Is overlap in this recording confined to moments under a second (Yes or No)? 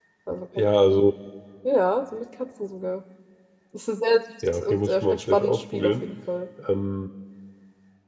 No